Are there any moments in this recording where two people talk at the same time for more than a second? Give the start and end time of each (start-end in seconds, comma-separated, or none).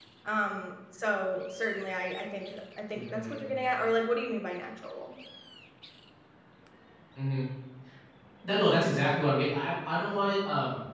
none